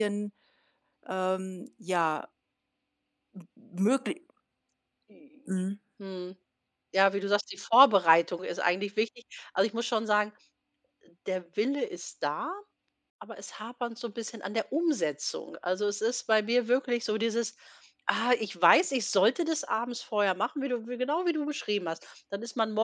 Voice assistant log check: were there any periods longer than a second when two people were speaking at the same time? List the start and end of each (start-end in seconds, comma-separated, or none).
none